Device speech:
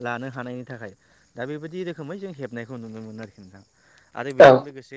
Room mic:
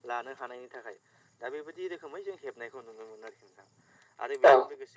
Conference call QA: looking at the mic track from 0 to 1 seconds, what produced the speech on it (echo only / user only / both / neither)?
echo only